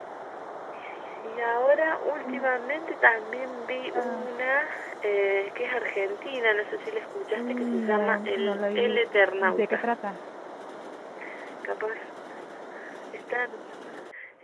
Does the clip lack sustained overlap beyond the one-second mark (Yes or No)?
No